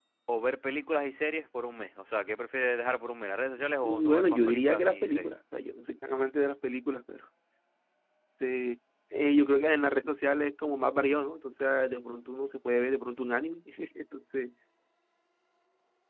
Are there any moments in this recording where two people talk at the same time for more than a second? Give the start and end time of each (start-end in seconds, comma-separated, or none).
3.8-5.3